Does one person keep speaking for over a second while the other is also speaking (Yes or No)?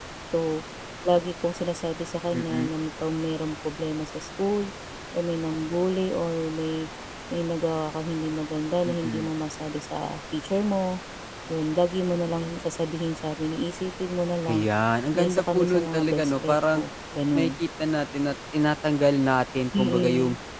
Yes